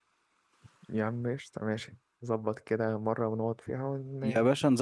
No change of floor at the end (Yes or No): No